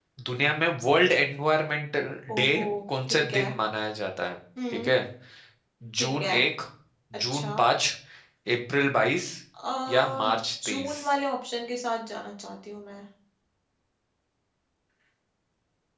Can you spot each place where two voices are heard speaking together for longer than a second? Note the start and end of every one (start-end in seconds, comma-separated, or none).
none